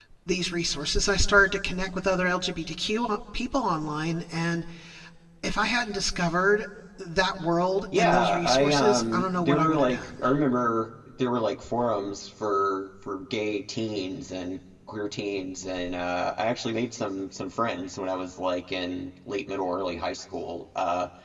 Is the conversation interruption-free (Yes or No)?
No